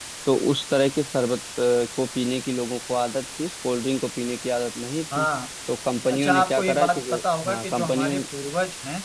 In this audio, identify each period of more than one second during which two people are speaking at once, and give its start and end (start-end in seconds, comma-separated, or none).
6.1-8.2